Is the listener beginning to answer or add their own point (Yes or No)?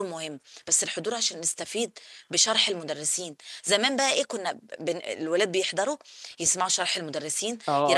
No